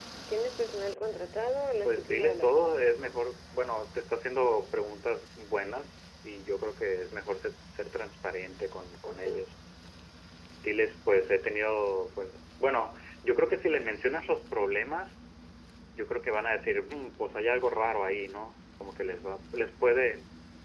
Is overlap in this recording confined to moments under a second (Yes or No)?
No